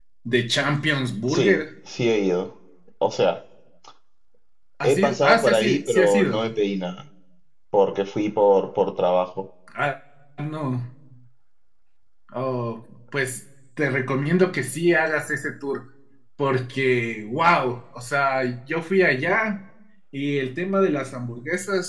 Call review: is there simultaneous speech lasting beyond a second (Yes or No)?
Yes